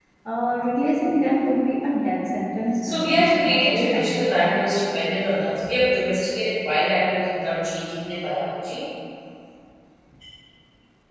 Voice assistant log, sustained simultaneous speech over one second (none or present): present